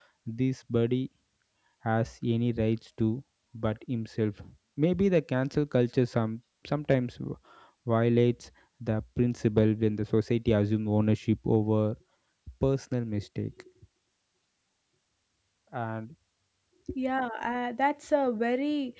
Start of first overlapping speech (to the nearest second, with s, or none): none